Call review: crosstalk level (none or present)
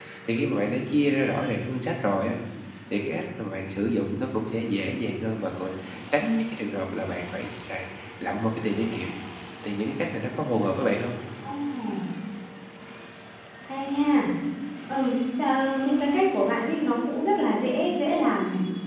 none